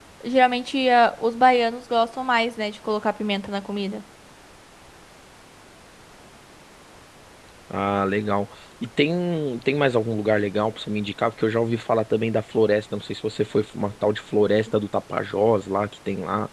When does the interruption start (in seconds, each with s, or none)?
none